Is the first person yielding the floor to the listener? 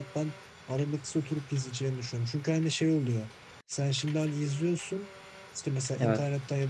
No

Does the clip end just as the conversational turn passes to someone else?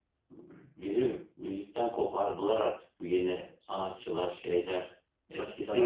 Yes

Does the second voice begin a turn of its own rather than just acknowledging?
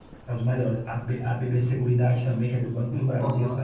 Yes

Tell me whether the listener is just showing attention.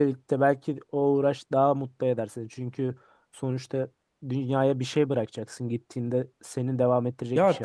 No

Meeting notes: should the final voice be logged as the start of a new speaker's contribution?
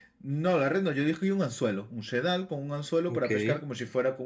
No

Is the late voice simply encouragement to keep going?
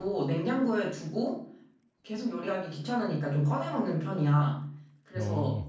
Yes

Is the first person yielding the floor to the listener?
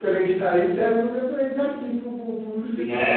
Yes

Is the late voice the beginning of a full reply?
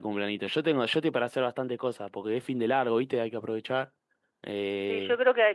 Yes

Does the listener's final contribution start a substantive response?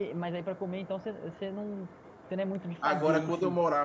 Yes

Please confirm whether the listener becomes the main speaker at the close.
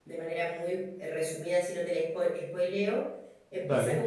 No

